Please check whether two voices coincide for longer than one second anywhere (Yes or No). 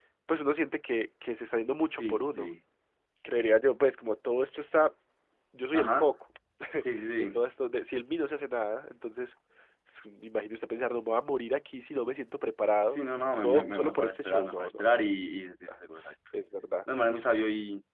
Yes